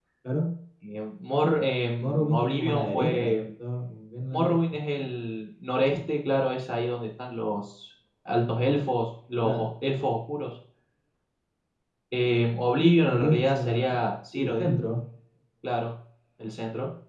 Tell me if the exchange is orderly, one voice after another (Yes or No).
No